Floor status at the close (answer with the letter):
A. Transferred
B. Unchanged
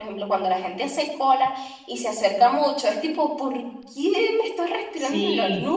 A